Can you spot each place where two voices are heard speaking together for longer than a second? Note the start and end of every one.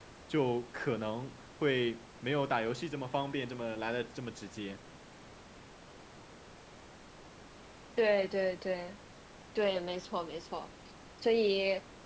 none

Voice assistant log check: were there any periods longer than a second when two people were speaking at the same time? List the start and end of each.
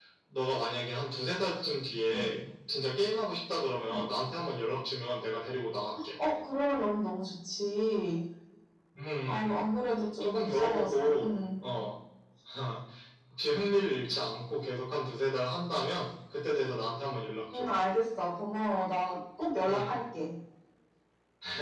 10.2-11.6

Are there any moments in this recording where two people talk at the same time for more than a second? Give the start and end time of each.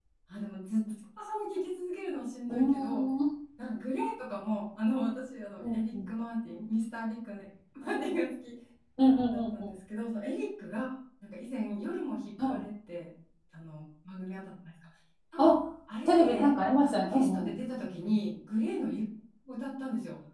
16.1-17.6

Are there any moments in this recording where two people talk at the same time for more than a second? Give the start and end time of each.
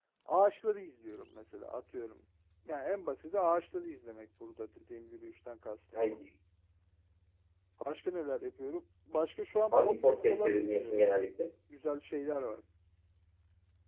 9.7-11.1

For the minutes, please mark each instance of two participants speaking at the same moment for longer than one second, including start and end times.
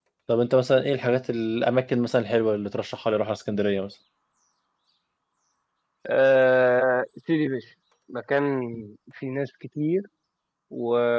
none

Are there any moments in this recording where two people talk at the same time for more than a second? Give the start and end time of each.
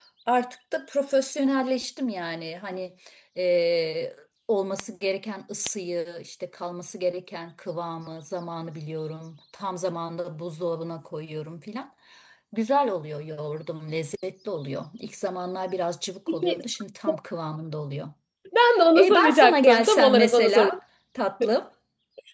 18.9-20.8

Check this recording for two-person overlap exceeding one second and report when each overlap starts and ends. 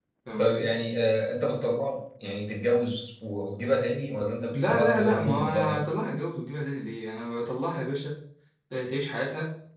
4.5-5.8

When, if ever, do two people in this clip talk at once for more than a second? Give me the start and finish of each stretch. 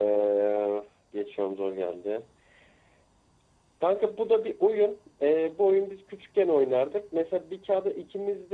none

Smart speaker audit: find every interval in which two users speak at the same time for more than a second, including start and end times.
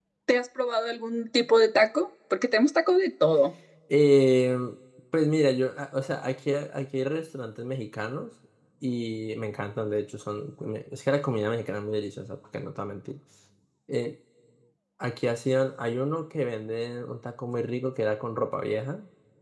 none

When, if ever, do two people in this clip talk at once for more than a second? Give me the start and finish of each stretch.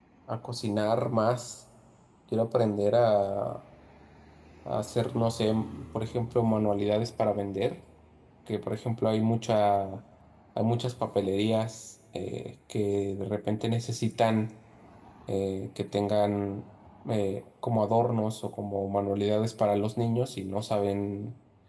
none

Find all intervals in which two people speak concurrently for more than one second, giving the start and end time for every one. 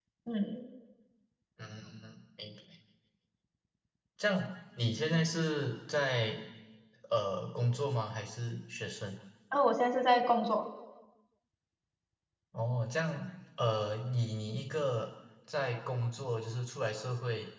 none

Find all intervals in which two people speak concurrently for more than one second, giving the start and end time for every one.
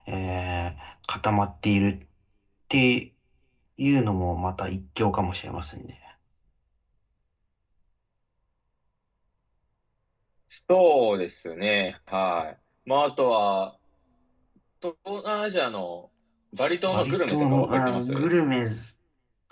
16.9-18.3

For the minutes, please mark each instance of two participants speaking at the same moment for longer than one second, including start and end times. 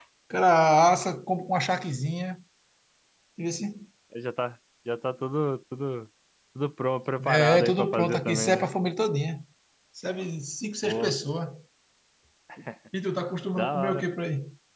7.2-8.7

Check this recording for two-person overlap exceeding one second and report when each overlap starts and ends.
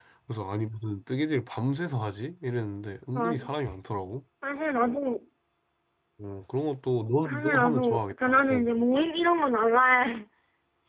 7.2-8.7

